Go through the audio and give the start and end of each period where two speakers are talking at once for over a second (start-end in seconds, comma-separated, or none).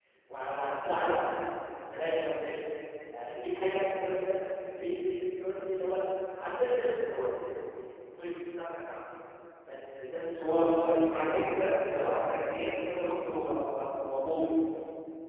10.4-12.1